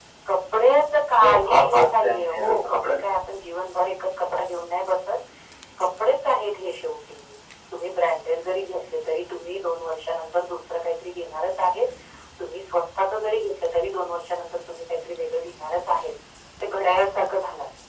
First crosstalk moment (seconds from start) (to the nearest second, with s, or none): 1 s